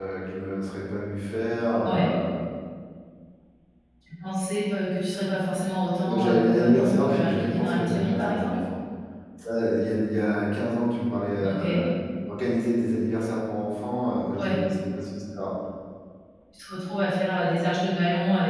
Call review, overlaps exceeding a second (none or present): present